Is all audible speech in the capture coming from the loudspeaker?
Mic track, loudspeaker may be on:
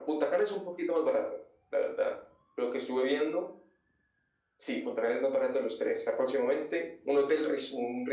Yes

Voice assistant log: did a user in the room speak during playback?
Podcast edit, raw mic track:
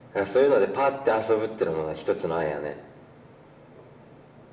No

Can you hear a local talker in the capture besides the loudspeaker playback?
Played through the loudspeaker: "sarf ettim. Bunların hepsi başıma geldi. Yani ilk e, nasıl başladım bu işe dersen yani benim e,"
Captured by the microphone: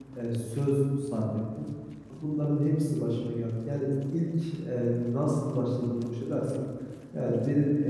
No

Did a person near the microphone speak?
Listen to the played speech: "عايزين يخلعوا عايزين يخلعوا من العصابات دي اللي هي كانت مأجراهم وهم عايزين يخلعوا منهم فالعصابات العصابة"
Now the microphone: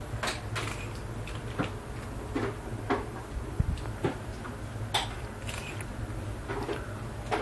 No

